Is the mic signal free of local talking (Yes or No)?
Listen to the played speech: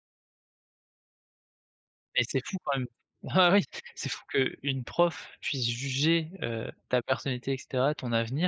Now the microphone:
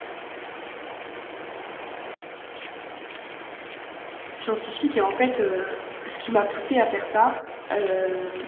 No